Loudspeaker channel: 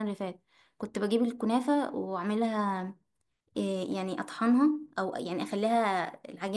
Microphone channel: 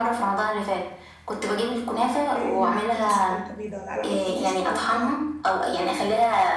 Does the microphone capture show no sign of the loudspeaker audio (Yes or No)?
No